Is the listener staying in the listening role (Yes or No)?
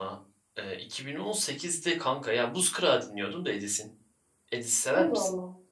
No